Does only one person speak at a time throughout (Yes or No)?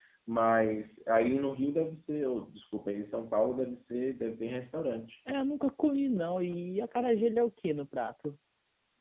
Yes